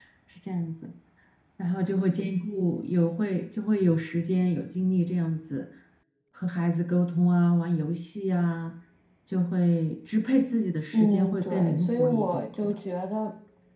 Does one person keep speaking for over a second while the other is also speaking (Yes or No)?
Yes